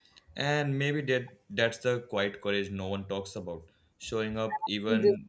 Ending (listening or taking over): taking over